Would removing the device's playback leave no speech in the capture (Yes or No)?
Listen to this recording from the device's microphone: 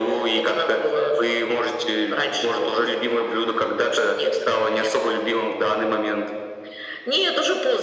Yes